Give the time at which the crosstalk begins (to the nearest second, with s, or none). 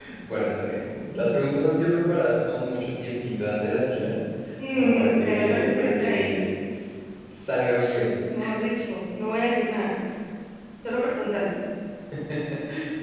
5 s